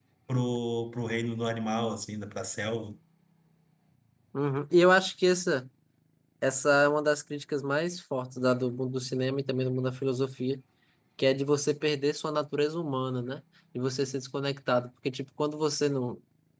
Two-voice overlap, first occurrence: none

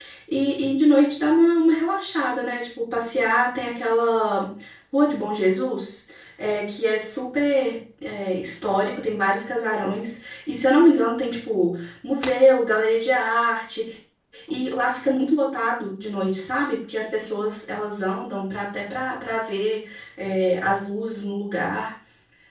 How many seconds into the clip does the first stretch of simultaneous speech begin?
none

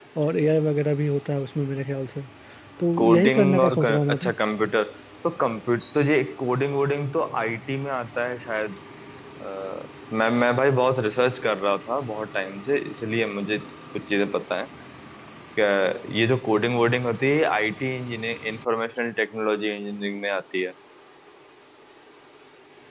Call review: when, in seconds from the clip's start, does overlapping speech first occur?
3.0 s

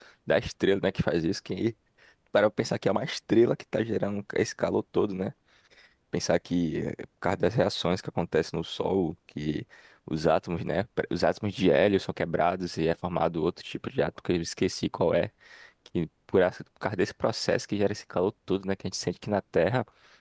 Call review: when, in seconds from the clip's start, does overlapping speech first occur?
none

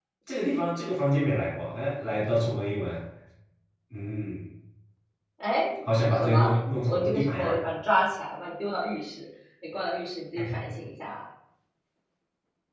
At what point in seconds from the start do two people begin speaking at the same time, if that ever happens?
6.1 s

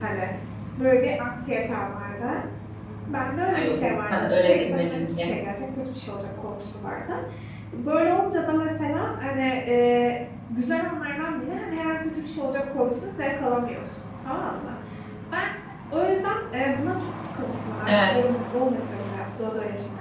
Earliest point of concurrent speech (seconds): 3.5 s

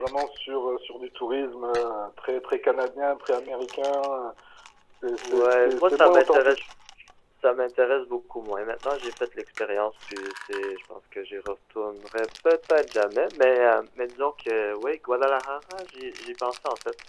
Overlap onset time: 5.2 s

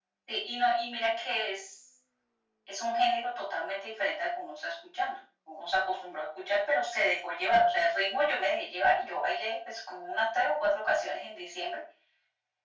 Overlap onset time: none

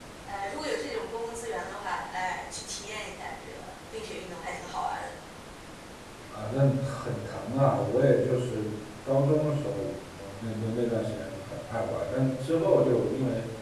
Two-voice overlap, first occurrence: none

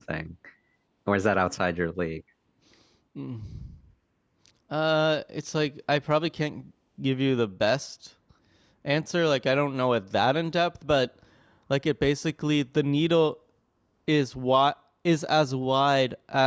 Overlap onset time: none

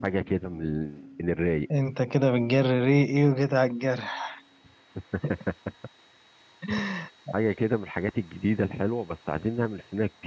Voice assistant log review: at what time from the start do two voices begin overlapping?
none

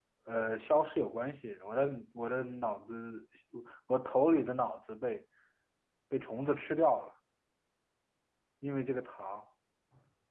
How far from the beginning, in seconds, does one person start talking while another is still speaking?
none

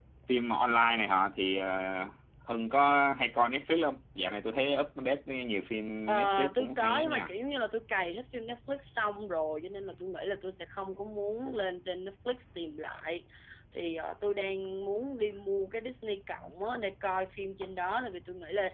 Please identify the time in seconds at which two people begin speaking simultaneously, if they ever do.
6.1 s

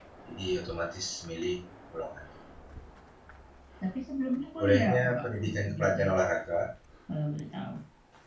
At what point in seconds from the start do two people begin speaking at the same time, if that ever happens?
4.6 s

